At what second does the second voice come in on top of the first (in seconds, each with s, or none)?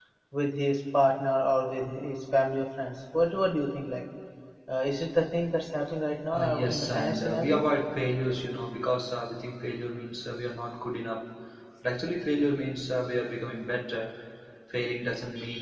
6.3 s